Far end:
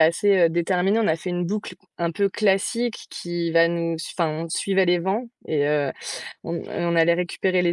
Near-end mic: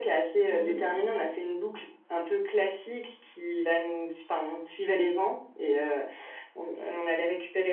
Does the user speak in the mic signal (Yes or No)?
Yes